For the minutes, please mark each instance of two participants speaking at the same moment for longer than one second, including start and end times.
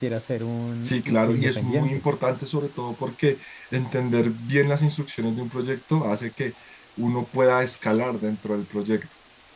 0.8-2.0

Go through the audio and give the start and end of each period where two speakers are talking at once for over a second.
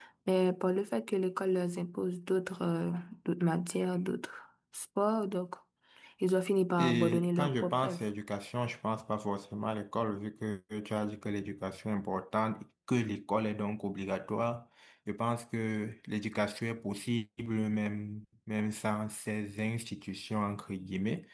6.8-8.0

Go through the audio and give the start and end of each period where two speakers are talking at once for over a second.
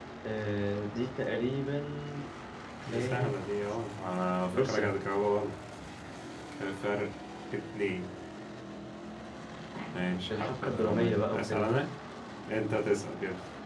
10.3-11.7

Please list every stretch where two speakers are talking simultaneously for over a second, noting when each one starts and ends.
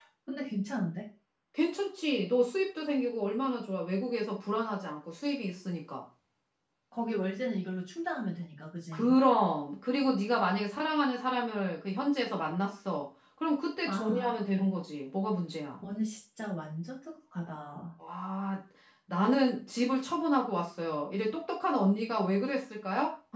none

